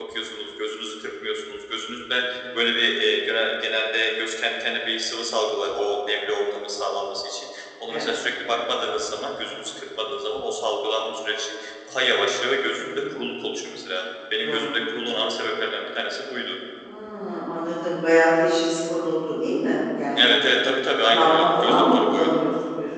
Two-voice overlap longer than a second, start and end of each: 21.1-22.4

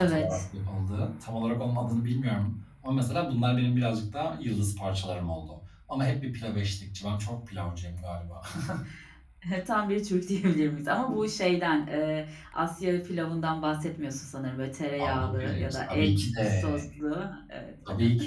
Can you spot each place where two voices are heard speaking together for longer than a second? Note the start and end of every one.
15.0-16.7

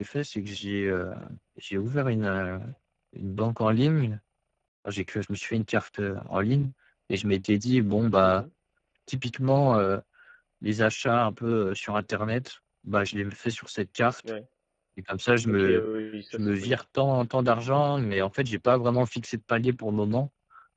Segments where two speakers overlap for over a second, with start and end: none

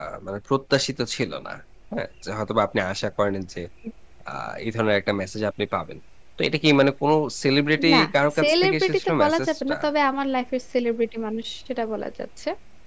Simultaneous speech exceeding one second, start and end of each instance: 8.4-9.8

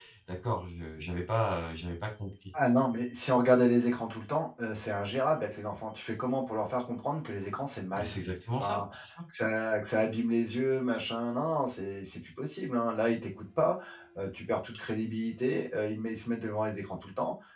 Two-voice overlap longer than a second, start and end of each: none

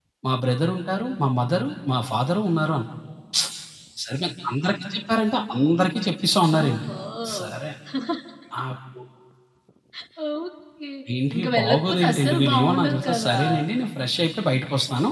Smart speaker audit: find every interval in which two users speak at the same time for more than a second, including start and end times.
11.3-13.4

